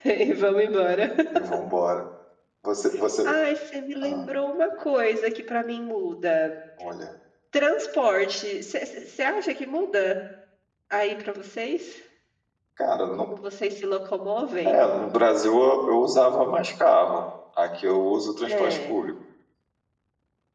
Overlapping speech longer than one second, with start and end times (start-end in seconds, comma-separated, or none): none